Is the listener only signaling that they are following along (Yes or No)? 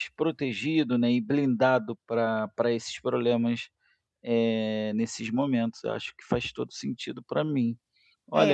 No